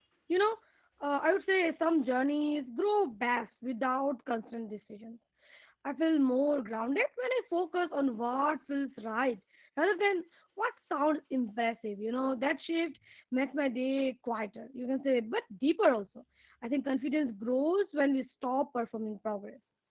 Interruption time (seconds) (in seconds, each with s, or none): none